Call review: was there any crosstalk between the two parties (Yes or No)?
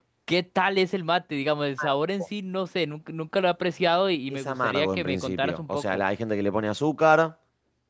Yes